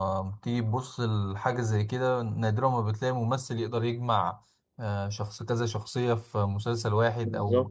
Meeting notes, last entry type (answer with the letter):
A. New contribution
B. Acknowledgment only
B